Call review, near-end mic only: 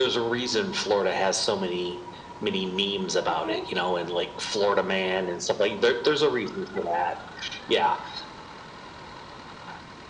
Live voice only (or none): Okay.